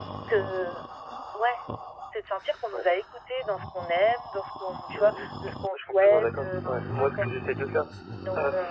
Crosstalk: present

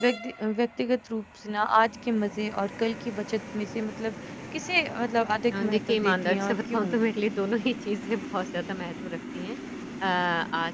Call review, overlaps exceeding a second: present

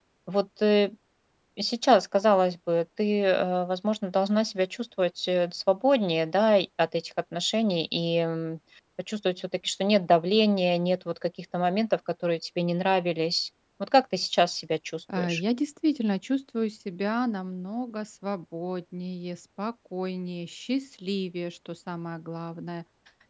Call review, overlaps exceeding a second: none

